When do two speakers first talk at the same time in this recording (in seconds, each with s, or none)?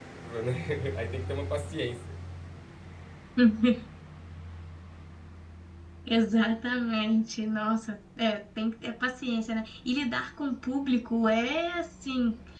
none